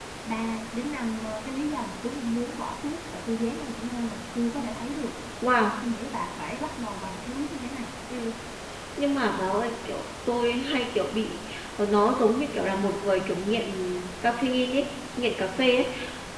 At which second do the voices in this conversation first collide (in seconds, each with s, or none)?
none